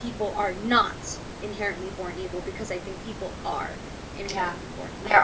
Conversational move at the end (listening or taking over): taking over